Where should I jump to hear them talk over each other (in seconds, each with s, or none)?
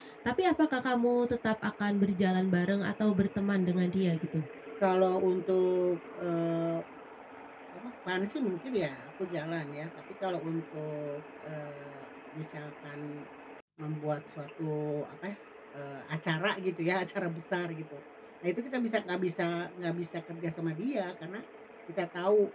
none